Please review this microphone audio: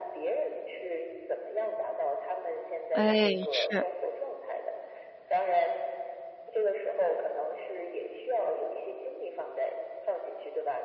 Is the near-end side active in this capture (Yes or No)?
Yes